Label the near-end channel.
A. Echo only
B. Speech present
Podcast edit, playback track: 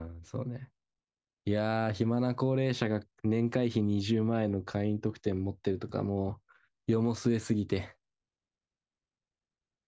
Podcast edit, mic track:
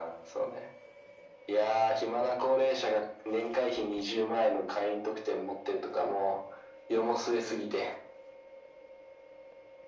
A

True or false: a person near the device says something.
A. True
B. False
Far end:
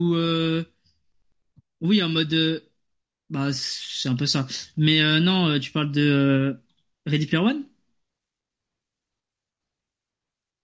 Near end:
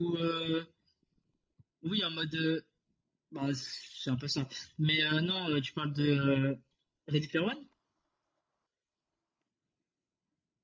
B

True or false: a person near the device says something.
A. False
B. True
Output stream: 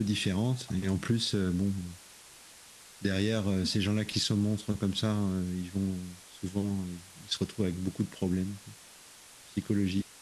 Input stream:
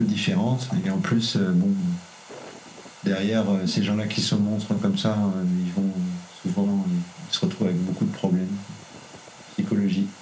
A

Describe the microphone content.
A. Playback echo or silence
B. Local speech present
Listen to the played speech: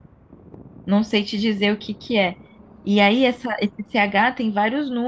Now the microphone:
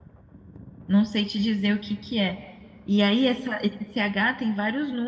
A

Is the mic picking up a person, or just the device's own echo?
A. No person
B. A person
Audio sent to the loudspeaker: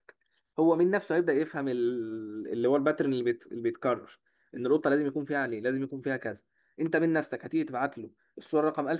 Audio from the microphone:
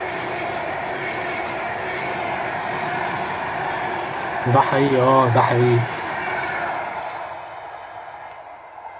B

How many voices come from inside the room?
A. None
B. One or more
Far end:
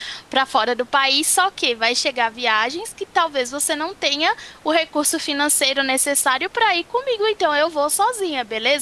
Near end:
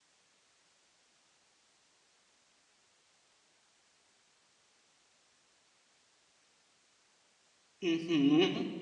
B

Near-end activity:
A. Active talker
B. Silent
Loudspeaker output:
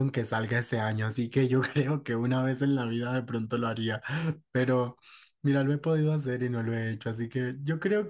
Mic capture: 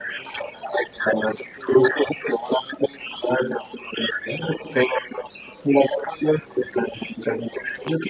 B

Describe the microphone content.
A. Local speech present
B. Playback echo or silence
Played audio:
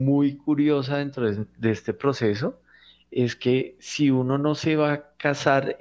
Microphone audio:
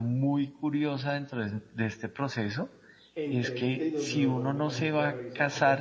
A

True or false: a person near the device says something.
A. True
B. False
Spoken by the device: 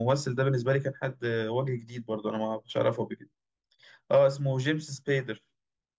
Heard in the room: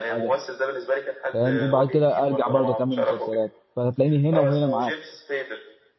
A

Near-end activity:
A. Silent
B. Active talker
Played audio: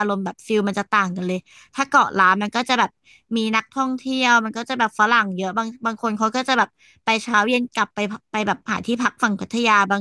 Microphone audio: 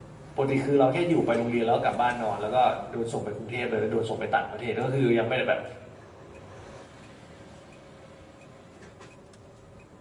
B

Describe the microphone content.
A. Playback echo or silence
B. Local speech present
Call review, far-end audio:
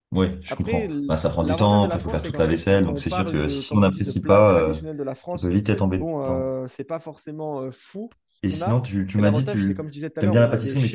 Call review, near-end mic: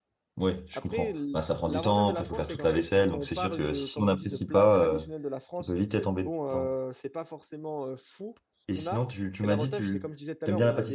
A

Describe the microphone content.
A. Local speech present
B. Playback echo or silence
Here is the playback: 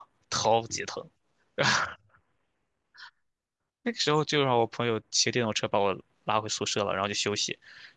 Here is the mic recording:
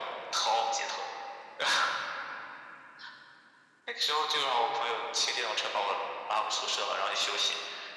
B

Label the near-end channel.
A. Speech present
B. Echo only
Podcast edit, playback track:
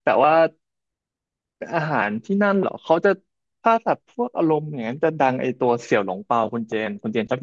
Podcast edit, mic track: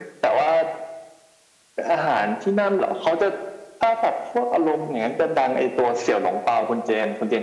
B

